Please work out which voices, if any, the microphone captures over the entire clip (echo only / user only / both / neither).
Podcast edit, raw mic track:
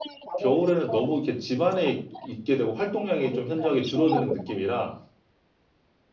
both